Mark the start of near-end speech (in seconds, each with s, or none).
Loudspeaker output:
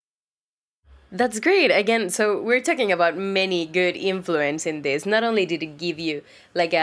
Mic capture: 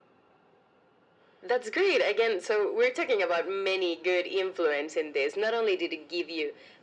none